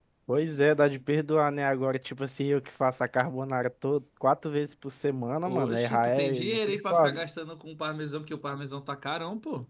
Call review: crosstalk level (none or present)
present